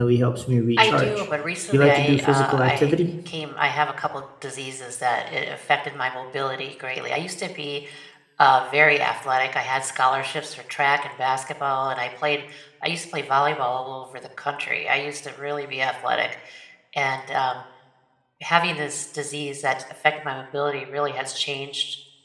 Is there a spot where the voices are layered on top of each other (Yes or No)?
Yes